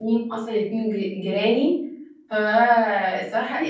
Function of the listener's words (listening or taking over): taking over